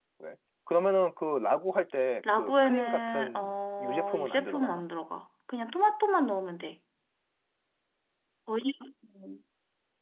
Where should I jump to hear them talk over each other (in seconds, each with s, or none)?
2.2 s